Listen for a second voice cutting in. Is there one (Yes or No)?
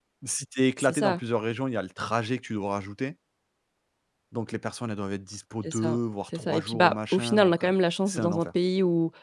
Yes